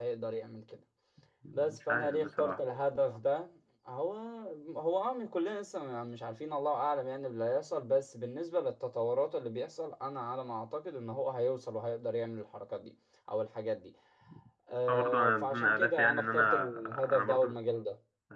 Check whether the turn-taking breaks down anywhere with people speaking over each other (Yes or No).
Yes